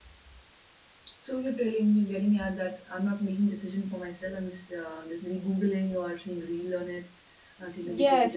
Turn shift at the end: Yes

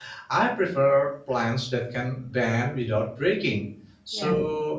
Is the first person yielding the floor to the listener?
No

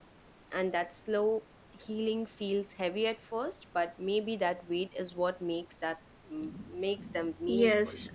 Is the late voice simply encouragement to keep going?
No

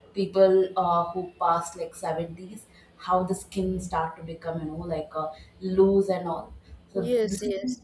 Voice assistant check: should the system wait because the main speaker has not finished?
Yes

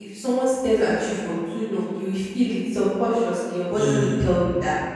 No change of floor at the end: Yes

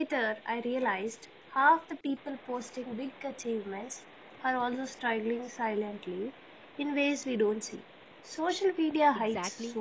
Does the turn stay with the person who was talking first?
No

